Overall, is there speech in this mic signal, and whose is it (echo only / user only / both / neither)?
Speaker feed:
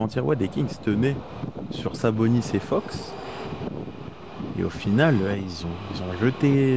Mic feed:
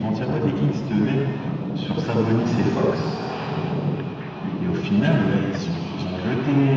echo only